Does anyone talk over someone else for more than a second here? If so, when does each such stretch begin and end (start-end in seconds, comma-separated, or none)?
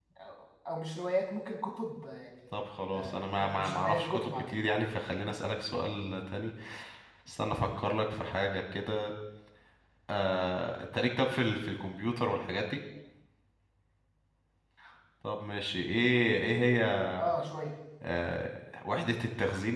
2.9-4.6